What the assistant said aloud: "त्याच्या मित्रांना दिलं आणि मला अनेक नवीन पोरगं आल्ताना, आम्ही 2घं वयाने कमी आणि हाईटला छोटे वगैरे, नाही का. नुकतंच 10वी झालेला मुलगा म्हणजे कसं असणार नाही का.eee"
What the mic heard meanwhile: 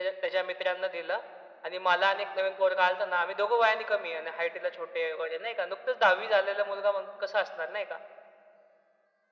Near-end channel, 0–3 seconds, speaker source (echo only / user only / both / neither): echo only